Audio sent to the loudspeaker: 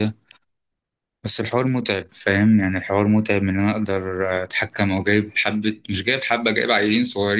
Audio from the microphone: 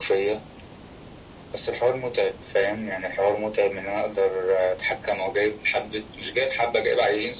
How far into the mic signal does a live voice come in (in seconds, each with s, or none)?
none